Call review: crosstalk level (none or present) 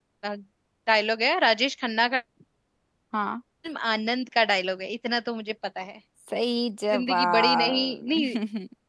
present